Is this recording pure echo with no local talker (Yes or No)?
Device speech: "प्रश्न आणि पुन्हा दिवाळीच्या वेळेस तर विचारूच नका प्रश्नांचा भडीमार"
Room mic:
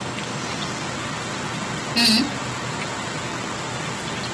No